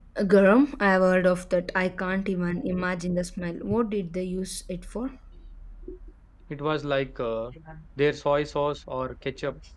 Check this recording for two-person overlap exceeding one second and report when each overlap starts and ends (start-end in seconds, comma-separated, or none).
none